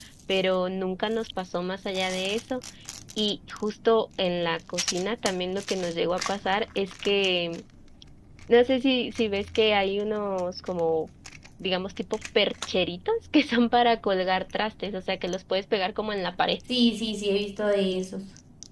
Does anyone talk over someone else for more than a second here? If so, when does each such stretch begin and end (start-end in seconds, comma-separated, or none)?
none